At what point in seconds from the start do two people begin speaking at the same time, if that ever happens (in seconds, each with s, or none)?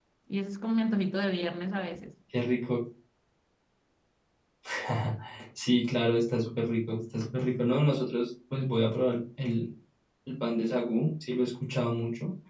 none